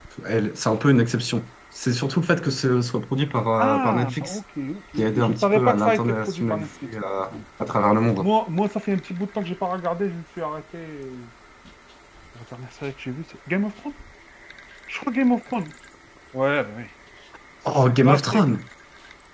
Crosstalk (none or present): present